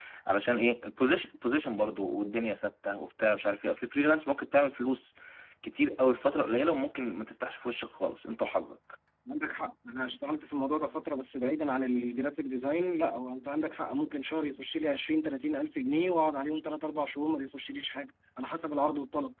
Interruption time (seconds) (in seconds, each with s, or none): none